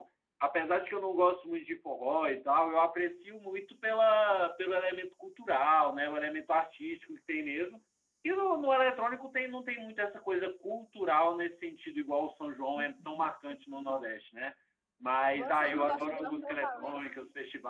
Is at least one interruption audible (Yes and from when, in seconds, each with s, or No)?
Yes, from 15.4 s